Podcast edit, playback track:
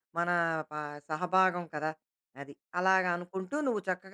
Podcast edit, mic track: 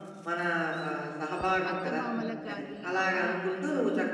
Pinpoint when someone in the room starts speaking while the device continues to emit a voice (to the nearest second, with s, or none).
2 s